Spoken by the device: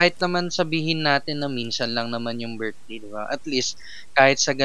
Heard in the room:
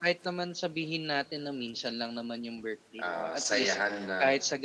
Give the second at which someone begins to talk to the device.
3.0 s

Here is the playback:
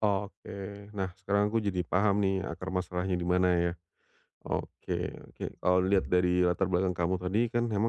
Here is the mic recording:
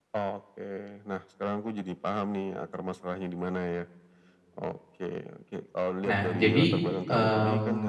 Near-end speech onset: 6.1 s

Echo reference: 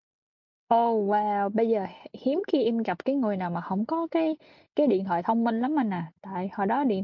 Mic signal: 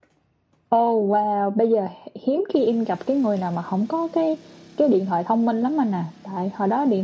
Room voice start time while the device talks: none

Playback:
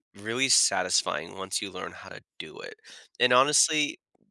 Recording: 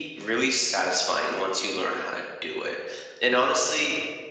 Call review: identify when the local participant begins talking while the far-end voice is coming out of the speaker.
none

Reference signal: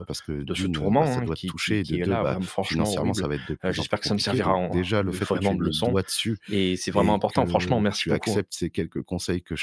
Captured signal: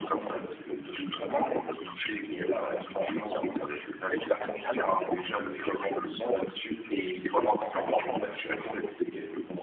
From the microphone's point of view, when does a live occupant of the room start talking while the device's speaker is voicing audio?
none

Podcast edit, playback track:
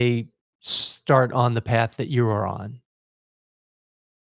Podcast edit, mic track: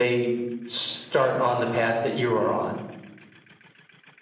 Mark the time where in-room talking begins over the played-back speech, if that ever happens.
none

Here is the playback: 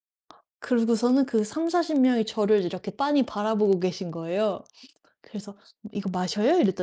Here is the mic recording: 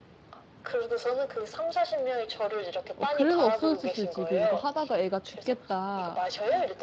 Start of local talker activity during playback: 3.0 s

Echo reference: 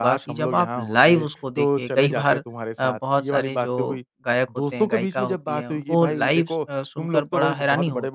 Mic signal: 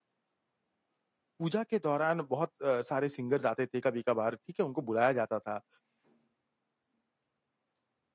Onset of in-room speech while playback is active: 1.4 s

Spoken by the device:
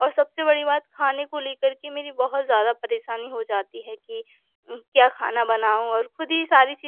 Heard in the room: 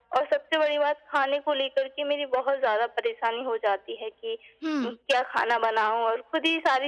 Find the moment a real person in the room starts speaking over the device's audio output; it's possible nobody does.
4.6 s

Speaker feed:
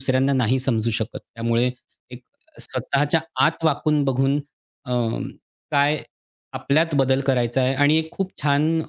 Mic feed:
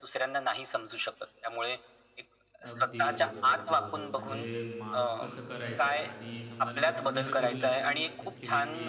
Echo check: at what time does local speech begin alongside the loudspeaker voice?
2.7 s

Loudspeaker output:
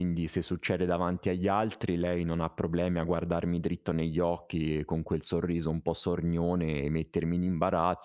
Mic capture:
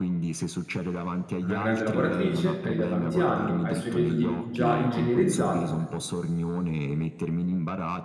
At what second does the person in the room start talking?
1.4 s

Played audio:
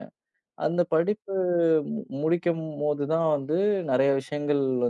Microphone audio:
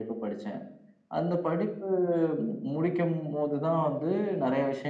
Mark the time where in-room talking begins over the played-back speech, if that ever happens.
none

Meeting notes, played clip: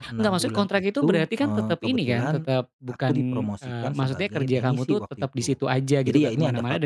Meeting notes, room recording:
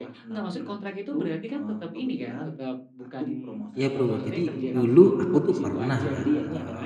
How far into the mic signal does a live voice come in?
3.7 s

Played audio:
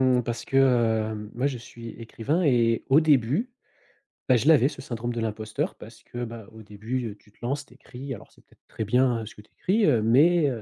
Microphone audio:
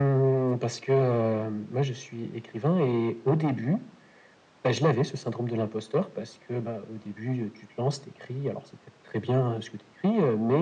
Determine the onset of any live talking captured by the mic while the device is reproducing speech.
none

